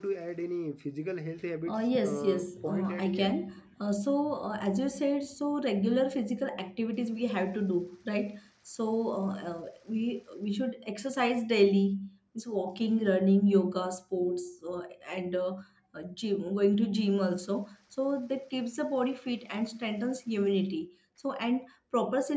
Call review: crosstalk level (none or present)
present